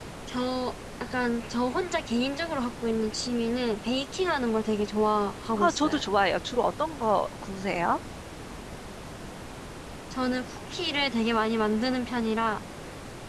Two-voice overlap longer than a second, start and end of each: none

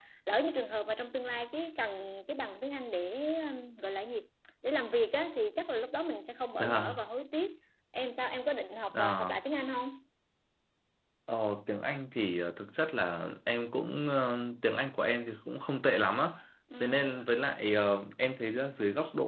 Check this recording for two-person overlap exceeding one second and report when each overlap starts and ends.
none

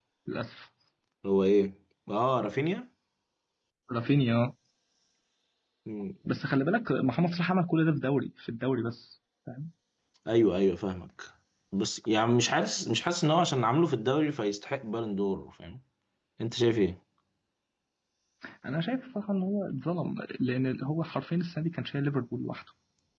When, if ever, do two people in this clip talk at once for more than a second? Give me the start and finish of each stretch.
none

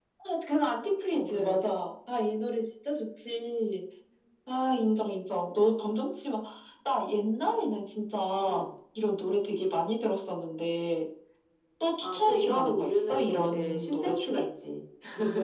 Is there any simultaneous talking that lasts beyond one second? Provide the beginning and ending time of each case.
12.0-14.4

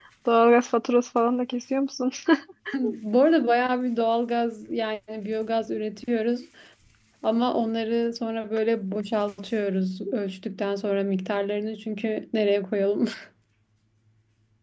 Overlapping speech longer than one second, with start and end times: none

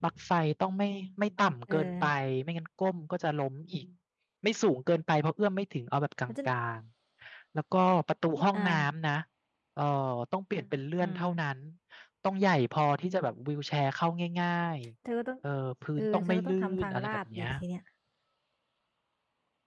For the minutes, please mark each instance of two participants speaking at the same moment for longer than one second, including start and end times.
16.0-17.5

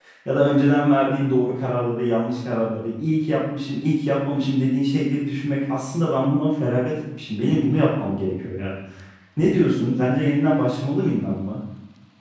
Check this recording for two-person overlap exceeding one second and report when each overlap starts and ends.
none

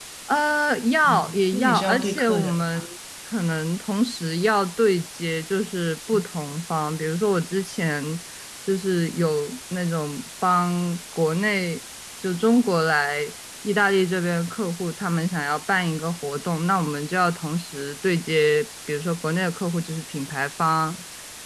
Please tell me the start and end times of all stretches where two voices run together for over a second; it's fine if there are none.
1.1-2.8

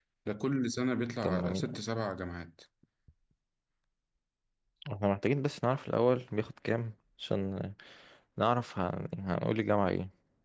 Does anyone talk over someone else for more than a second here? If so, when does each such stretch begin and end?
none

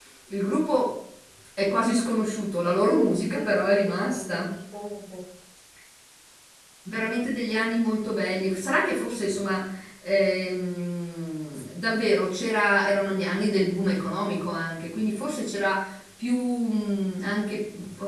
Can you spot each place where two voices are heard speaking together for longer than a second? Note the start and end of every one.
2.9-4.5

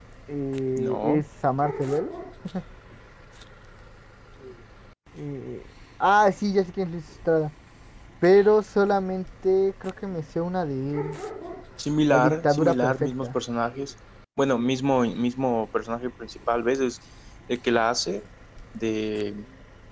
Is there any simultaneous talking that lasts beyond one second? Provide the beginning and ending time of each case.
12.1-13.4

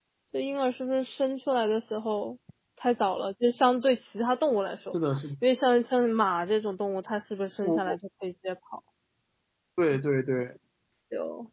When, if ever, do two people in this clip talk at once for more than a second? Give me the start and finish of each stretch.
none

